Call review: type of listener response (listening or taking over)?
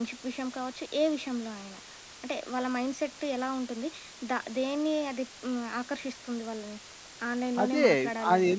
taking over